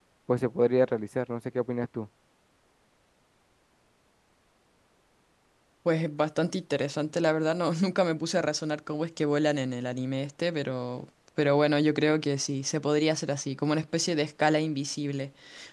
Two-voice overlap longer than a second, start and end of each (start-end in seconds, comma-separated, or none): none